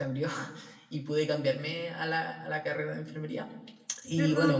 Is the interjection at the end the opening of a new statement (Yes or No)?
Yes